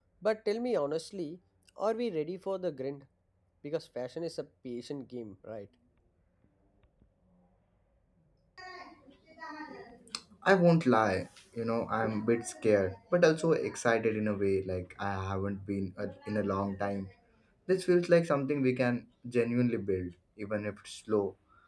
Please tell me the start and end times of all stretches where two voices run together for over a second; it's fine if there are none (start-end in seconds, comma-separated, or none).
none